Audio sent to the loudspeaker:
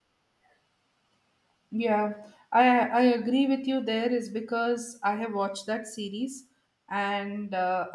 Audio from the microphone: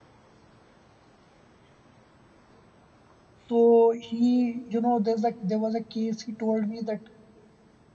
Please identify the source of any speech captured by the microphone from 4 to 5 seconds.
user only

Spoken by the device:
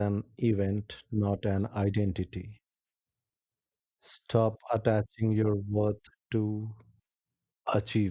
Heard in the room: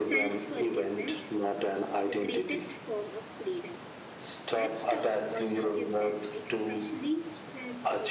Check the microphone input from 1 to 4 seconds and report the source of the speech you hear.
both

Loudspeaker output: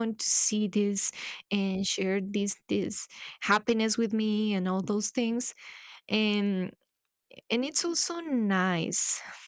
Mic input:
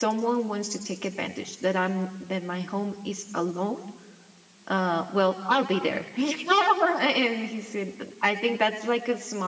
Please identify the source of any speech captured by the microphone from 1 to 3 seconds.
user only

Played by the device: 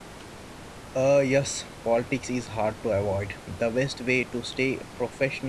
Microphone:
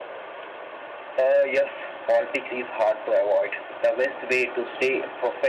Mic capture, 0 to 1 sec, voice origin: neither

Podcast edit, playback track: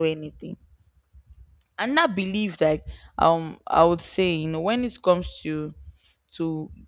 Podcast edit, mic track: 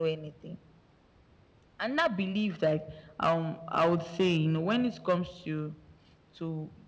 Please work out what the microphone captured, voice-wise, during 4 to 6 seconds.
echo only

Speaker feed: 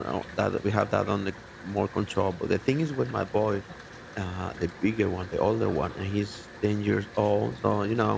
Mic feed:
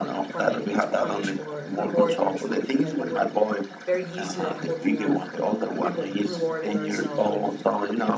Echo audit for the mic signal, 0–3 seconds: both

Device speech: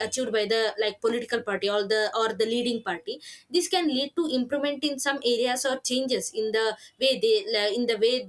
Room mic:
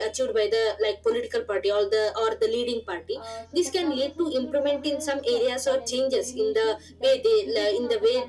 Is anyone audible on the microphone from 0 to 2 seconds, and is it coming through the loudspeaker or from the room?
echo only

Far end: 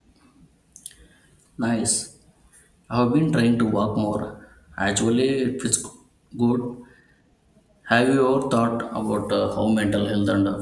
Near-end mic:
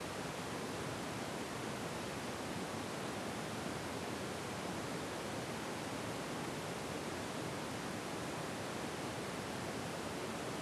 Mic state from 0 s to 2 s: neither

